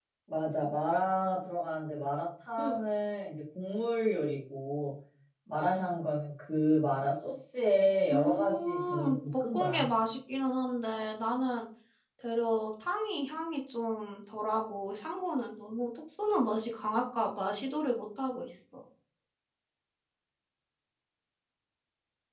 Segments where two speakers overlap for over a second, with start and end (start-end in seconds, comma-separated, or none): 8.1-9.9